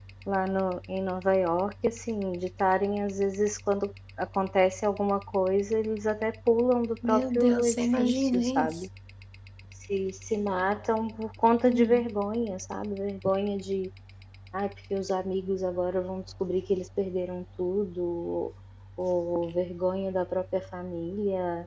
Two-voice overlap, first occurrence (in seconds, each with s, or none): 7.0 s